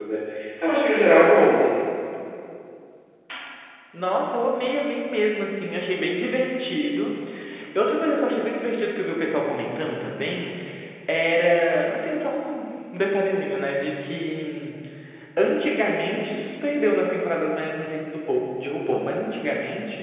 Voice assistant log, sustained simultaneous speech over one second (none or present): none